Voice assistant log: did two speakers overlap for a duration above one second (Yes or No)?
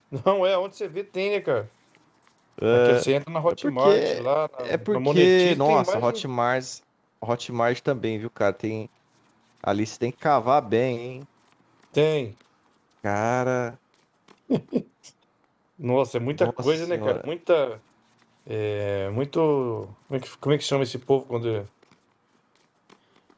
Yes